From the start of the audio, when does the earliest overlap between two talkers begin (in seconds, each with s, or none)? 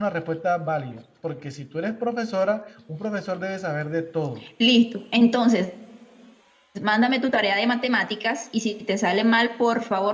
none